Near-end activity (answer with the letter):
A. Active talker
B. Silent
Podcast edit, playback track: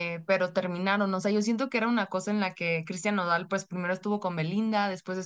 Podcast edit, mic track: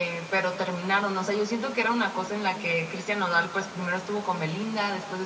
B